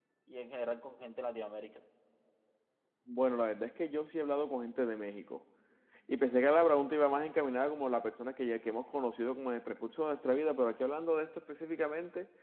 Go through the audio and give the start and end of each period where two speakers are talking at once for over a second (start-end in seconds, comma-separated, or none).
none